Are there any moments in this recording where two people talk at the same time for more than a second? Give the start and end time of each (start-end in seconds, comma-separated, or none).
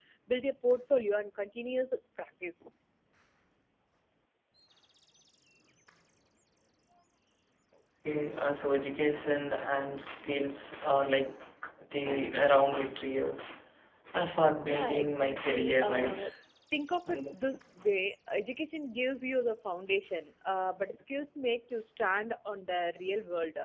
14.6-16.3